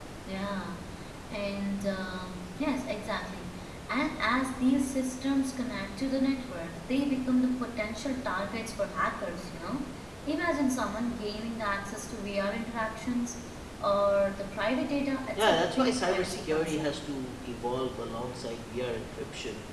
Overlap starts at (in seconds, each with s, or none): 15.4 s